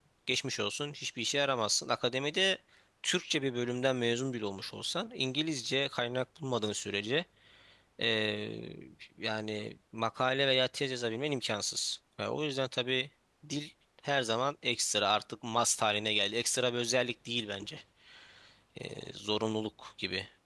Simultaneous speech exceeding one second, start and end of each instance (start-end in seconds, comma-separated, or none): none